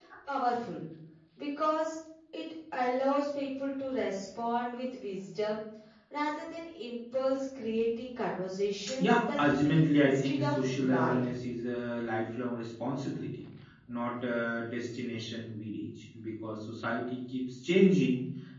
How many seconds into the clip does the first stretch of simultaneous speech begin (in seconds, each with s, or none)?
9.0 s